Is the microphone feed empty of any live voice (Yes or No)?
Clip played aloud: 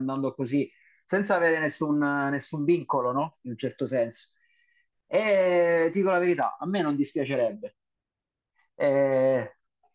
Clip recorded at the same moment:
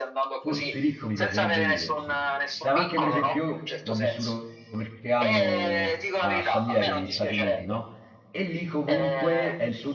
No